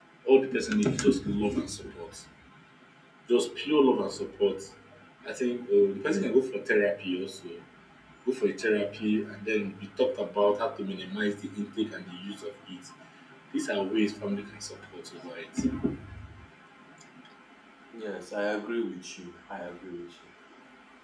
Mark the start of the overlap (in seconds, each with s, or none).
none